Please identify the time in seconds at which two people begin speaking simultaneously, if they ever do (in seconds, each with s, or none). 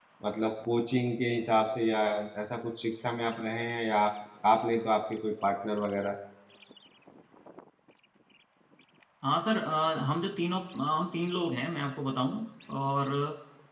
none